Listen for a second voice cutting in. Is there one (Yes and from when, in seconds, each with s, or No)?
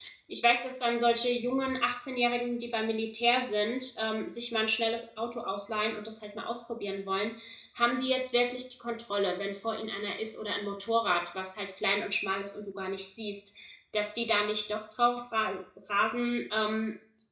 No